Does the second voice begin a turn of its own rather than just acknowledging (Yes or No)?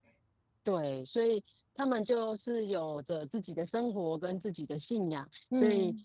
No